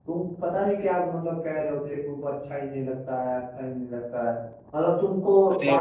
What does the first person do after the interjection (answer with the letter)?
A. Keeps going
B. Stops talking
A